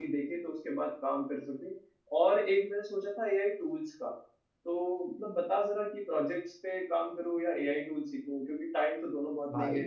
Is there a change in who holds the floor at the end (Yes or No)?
No